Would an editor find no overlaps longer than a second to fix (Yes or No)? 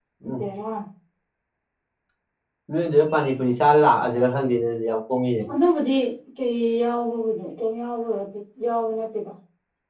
Yes